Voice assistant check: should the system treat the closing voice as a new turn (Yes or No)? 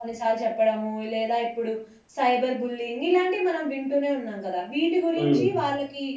No